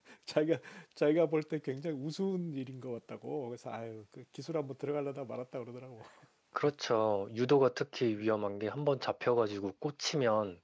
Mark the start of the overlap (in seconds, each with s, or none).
none